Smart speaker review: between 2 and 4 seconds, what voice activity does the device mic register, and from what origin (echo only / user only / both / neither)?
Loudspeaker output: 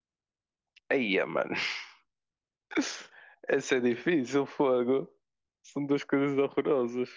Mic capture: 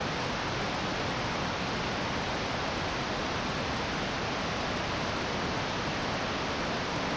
neither